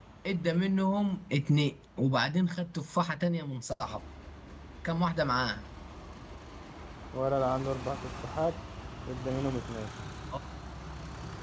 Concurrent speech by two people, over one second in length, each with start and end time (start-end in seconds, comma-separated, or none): none